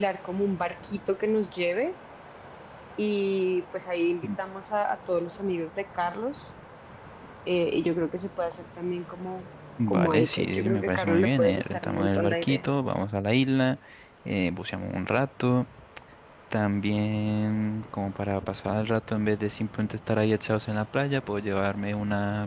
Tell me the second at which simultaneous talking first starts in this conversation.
9.8 s

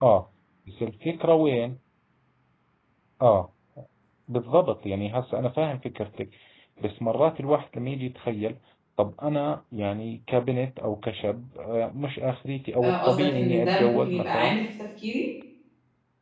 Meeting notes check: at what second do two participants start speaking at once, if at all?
12.7 s

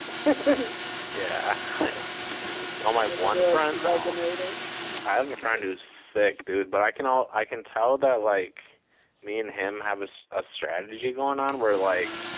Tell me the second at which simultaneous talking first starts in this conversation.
2.9 s

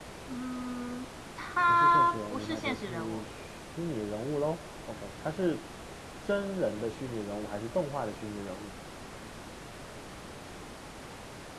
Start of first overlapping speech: 1.7 s

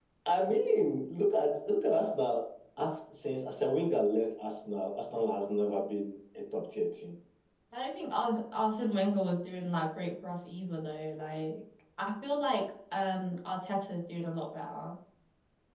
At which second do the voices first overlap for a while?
none

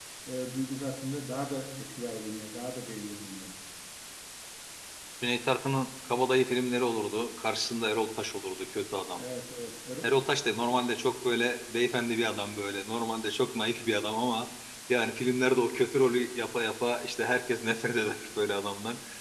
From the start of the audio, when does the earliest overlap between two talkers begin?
none

